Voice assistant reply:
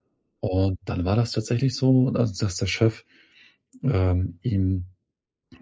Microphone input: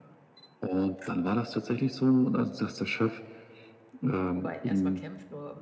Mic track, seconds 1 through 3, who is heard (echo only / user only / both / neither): echo only